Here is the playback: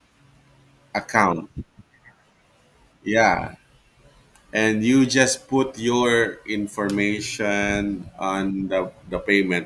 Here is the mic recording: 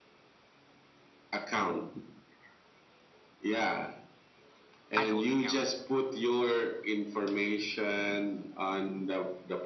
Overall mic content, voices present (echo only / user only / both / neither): both